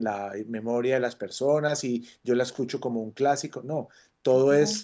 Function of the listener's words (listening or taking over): listening